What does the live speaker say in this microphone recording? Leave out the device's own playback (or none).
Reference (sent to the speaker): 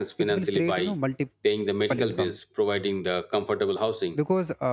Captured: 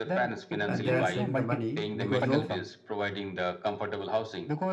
and they are saving the money because of